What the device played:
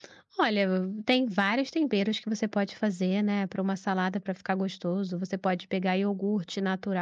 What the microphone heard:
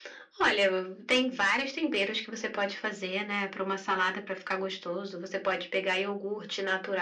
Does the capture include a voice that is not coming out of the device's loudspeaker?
No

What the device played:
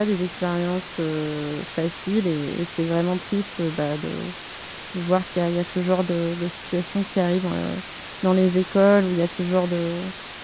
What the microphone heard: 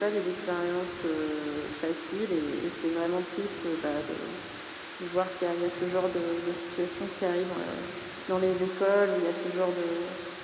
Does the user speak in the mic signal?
No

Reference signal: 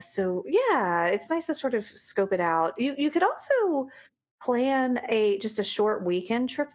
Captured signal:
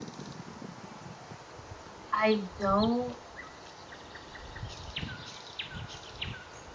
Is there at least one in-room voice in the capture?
Yes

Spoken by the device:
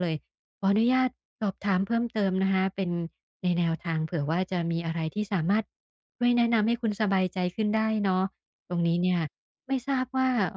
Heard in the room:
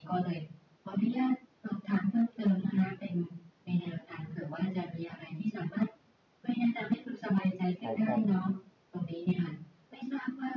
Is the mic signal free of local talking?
No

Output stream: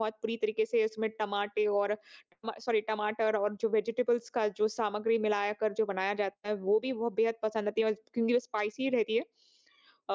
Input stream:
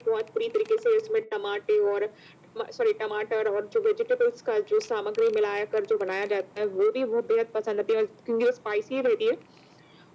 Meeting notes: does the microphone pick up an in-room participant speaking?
No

